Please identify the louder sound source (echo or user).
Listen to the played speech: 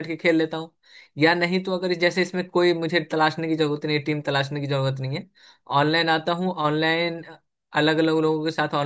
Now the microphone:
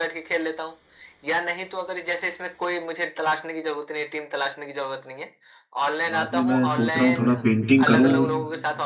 user